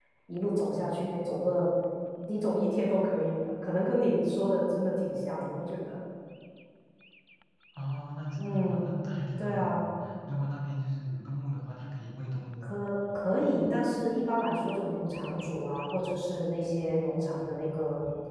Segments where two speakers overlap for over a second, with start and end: none

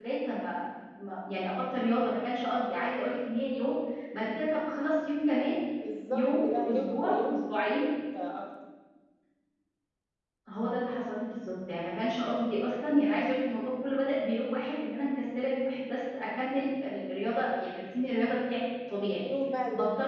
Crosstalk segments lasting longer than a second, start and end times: 6.1-7.8

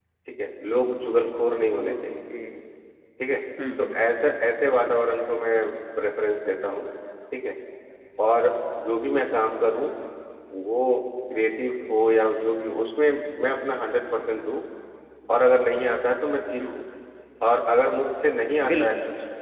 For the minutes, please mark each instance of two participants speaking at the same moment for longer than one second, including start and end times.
none

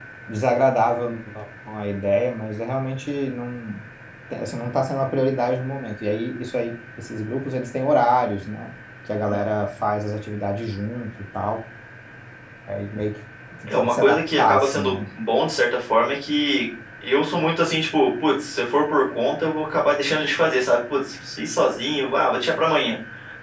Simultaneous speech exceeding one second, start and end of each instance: 13.8-15.0

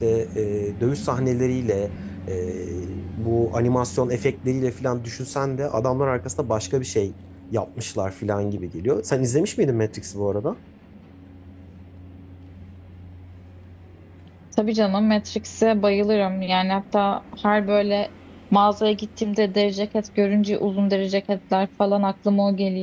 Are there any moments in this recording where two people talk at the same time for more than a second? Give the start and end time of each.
none

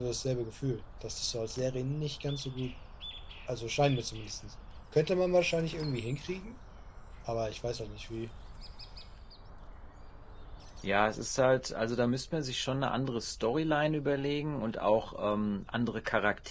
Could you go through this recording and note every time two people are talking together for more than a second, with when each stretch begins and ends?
none

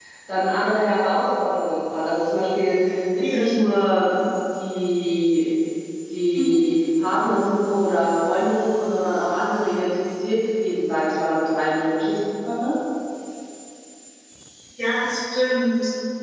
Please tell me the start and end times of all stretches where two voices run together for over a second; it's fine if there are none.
none

